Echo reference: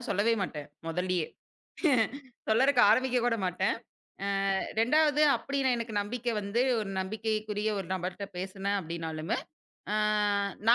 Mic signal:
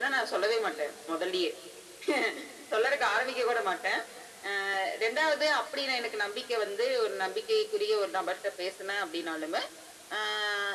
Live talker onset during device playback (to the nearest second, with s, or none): none